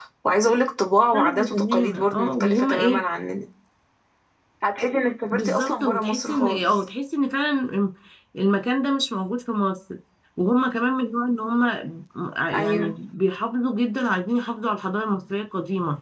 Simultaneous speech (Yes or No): Yes